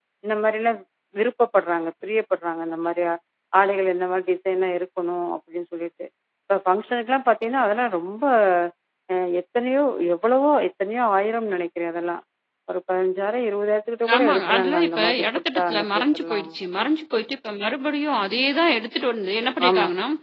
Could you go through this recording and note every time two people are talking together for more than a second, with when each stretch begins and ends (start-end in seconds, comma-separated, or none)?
14.2-16.5